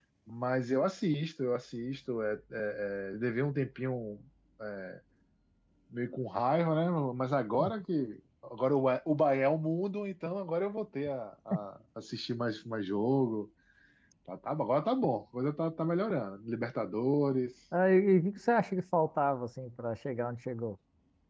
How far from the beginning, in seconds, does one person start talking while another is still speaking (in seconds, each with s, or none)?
none